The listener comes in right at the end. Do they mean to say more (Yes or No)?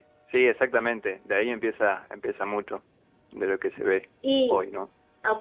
Yes